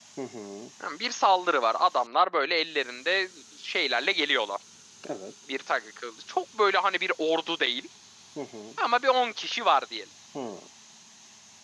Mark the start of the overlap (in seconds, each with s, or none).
none